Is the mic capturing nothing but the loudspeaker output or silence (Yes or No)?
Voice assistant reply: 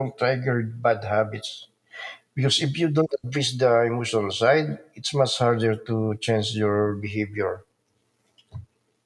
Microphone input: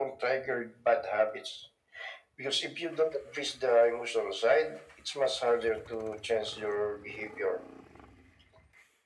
Yes